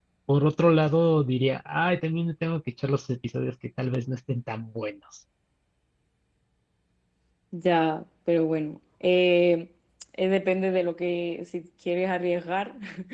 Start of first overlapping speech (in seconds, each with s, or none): none